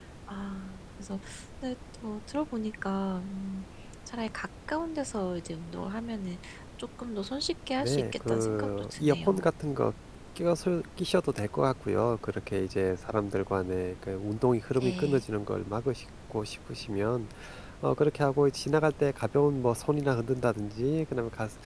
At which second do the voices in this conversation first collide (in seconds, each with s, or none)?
7.8 s